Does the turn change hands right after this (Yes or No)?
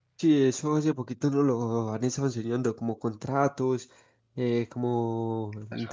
No